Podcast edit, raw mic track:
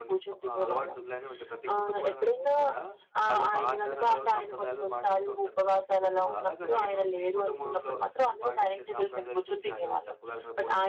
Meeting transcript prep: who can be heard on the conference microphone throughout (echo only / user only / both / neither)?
both